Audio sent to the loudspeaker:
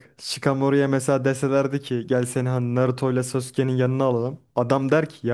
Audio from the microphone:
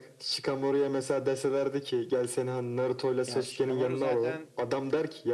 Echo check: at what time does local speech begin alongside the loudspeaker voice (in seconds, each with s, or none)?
3.3 s